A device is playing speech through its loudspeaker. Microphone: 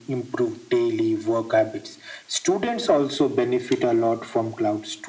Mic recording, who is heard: echo only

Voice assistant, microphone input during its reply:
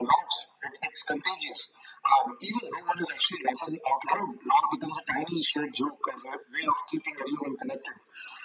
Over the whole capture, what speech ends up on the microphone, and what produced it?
echo only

